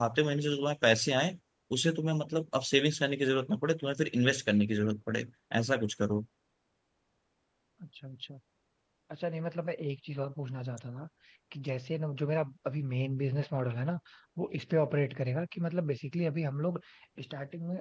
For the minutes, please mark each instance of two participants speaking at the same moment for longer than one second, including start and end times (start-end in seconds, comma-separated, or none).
none